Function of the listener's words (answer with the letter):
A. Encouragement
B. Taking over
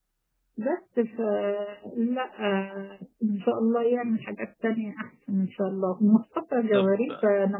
A